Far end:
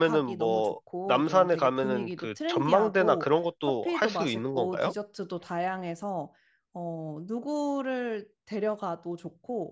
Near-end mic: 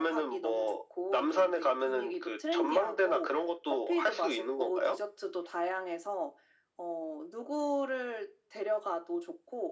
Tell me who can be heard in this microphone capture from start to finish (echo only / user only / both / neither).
echo only